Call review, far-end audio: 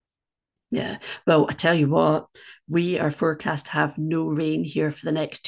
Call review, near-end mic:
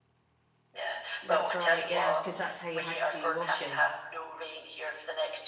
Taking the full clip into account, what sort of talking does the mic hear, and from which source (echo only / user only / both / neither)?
both